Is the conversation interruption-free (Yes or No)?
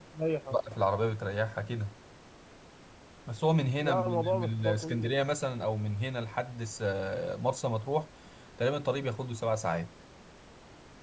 No